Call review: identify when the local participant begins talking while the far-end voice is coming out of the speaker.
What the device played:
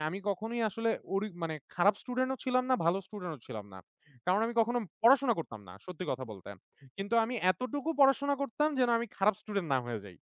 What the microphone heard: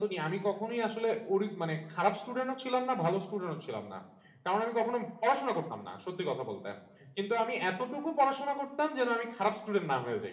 none

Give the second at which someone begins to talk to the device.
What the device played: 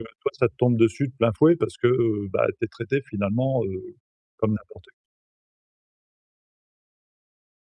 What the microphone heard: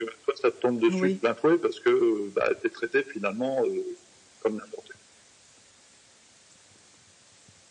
0.9 s

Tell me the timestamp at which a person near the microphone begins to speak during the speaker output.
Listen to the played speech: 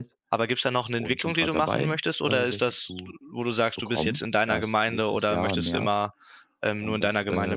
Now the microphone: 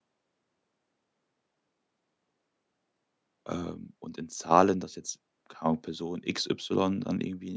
3.5 s

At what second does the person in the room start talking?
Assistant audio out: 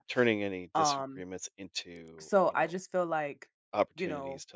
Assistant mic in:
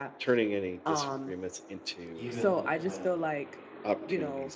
2.1 s

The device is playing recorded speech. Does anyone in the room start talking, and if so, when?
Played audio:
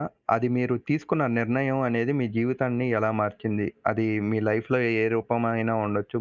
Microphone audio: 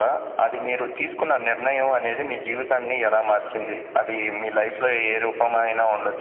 none

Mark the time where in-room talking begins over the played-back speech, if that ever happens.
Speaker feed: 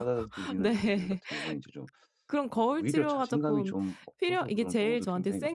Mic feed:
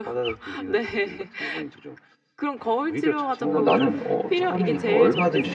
3.4 s

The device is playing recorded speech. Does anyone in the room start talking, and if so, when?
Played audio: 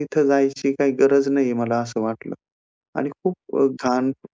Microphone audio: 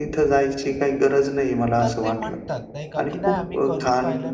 1.8 s

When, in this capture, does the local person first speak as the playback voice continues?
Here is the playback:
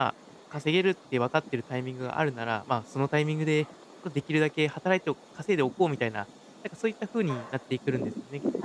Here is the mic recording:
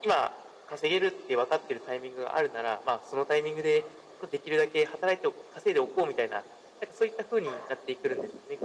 none

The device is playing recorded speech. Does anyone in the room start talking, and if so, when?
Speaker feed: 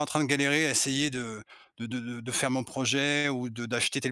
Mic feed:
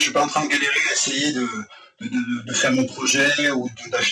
none

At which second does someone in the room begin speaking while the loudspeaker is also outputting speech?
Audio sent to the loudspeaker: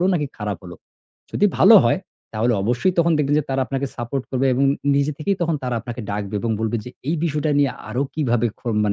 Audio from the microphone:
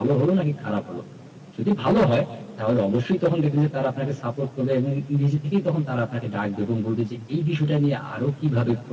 none

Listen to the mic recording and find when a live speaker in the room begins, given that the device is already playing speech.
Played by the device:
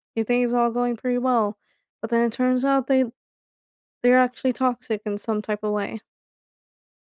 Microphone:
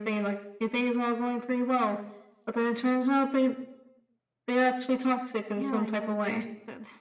5.5 s

